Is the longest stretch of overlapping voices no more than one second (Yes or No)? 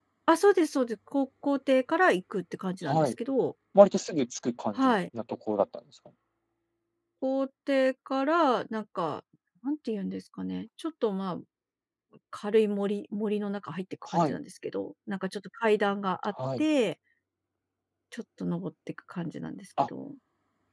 Yes